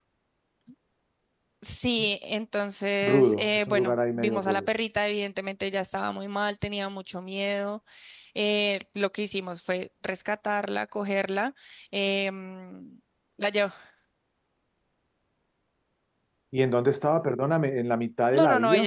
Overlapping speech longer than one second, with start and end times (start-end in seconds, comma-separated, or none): 3.0-4.6